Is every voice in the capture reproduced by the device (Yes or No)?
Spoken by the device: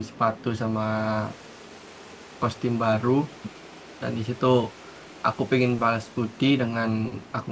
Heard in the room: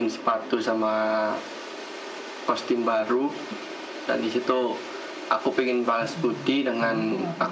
No